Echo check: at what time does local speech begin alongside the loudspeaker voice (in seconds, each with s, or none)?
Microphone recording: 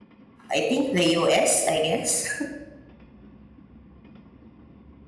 0.5 s